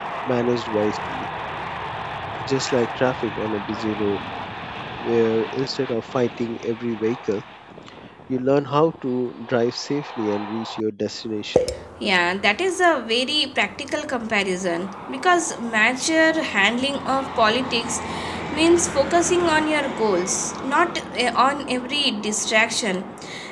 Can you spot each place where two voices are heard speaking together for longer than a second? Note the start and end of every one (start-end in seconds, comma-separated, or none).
none